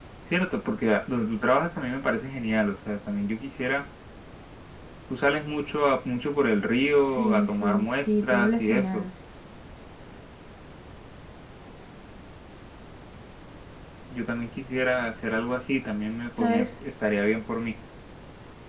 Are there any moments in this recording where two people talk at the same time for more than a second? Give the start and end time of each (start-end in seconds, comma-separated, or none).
7.1-9.0